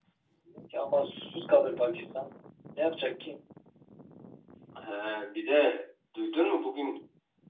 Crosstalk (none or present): none